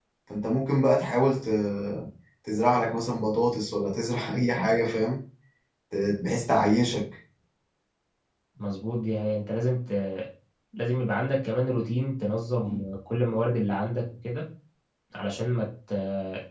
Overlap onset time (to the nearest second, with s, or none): none